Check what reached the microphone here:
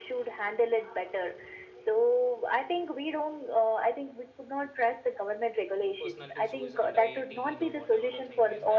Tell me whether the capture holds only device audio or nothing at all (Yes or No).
No